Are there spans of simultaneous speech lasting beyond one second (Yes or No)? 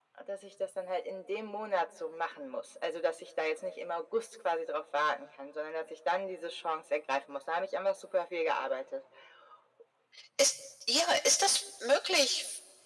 No